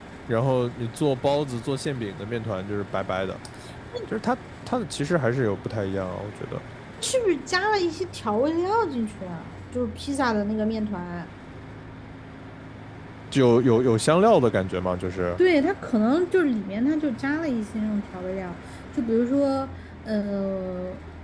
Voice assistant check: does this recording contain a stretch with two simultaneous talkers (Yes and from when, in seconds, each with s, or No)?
No